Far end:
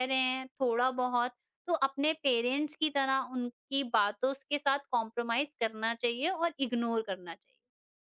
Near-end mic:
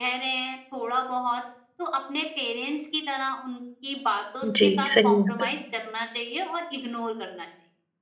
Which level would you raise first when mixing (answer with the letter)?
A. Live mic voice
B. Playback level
B